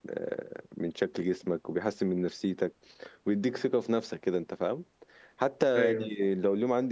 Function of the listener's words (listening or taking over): listening